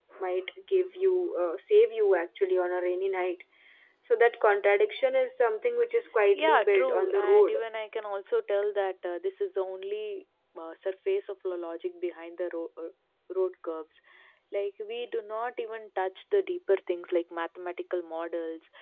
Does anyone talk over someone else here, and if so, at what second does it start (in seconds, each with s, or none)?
6.3 s